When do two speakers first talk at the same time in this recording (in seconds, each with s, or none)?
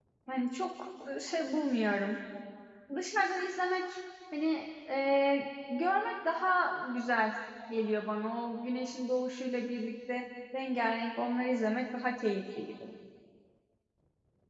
none